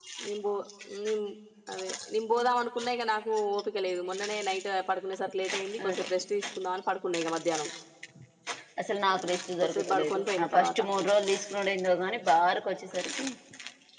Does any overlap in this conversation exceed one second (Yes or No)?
Yes